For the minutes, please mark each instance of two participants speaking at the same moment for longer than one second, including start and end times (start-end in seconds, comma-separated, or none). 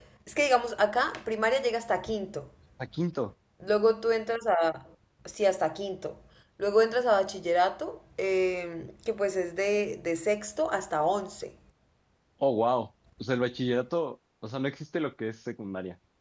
none